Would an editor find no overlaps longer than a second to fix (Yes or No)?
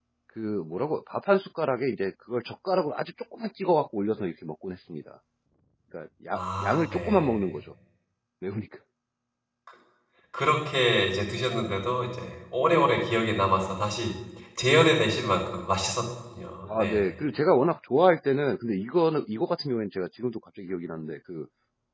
No